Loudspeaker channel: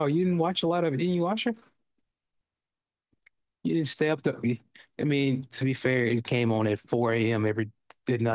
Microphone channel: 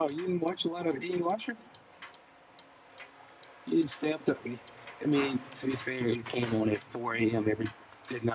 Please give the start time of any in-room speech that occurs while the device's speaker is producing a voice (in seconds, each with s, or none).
none